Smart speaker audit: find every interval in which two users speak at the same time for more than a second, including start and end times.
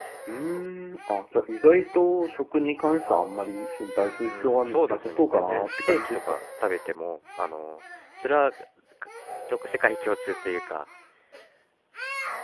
4.2-6.3

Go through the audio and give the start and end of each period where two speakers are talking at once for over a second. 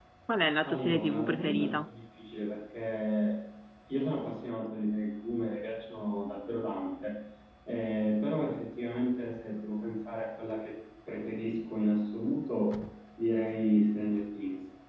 0.6-1.9

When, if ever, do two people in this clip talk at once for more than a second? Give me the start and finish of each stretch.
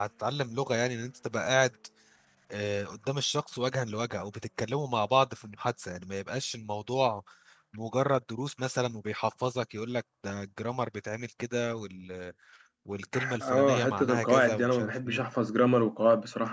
13.4-15.2

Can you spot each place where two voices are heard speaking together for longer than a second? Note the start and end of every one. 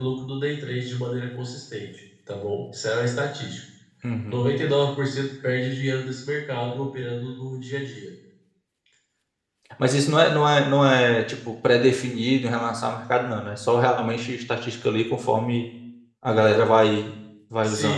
none

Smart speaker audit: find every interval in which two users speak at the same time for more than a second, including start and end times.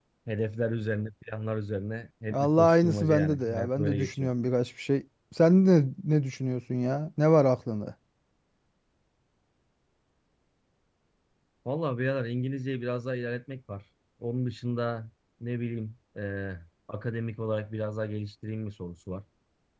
2.3-4.3

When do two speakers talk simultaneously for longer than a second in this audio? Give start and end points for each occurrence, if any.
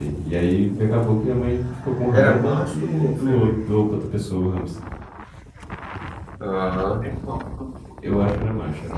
2.2-3.6

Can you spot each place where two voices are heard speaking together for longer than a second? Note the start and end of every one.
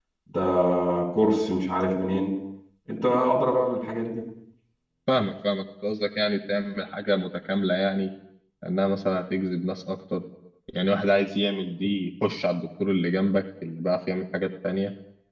none

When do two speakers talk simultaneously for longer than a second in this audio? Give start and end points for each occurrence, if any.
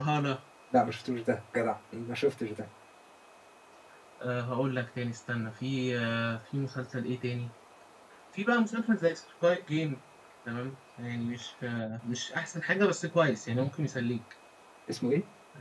none

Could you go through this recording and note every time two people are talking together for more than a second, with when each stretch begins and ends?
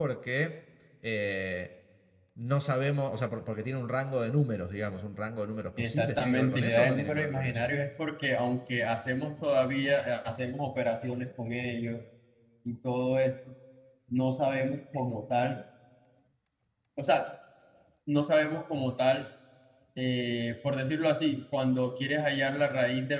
5.8-7.7

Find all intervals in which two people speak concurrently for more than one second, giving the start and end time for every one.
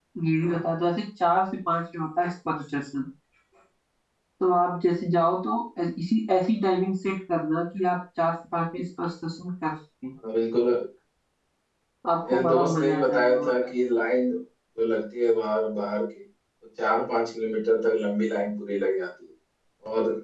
12.3-13.5

